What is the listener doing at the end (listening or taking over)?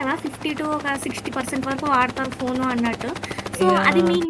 listening